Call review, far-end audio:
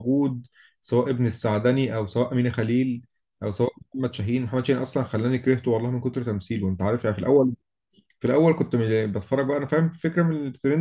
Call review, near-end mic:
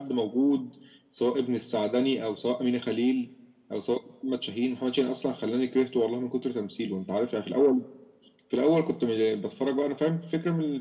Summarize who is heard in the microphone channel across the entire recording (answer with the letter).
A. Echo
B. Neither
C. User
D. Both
A